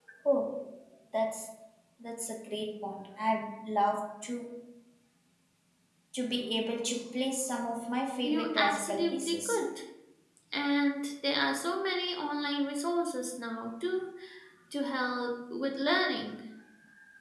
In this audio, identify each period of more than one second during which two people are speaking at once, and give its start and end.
8.2-9.6

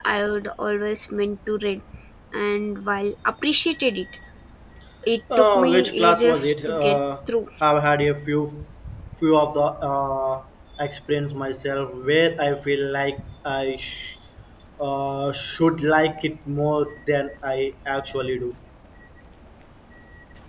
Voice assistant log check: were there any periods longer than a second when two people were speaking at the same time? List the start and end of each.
5.4-7.0

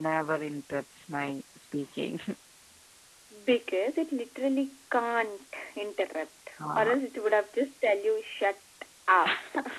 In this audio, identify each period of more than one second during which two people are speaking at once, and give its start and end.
none

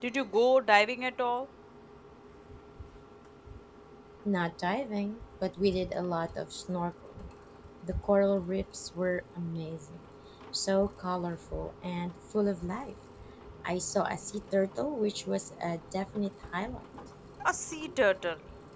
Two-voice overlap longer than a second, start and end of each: none

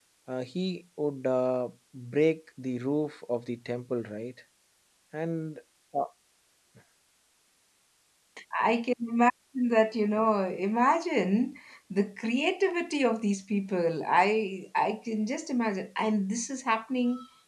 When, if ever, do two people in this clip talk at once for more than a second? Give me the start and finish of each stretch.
none

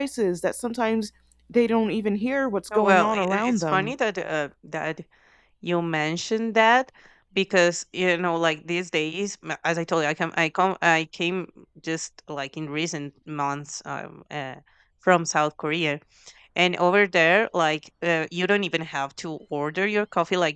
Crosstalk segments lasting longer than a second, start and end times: 2.7-3.9

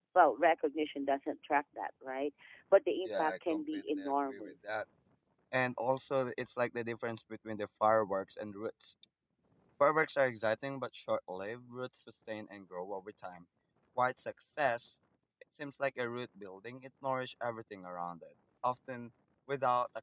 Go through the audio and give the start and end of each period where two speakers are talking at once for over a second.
3.0-4.8

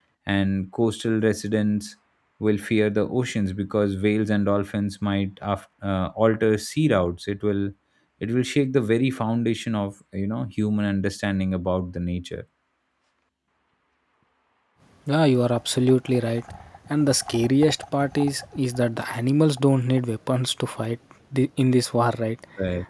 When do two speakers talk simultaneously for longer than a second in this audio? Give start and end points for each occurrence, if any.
none

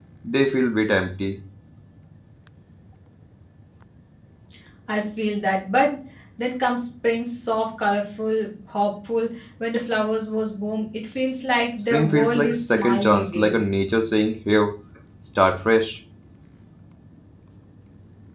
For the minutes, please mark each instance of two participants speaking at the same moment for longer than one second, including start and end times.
11.8-13.6

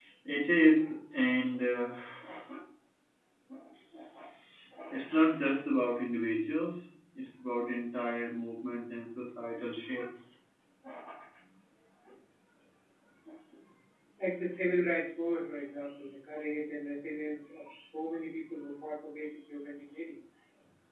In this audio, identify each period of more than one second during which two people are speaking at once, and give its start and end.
none

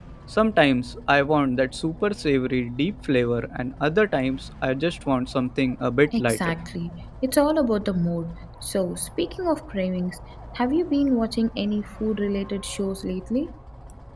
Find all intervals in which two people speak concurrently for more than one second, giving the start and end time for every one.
none

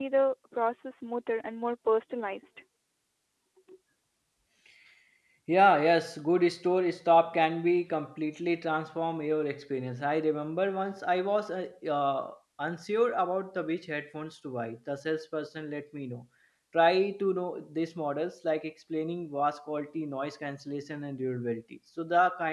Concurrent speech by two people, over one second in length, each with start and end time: none

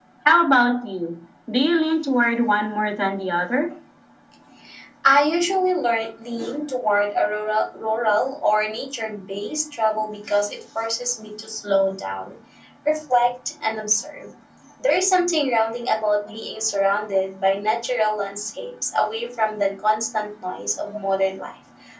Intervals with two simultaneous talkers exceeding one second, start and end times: none

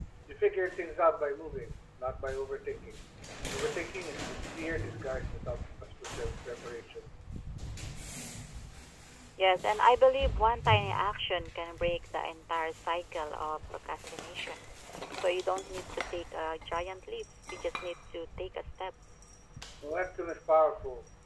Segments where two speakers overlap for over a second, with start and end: none

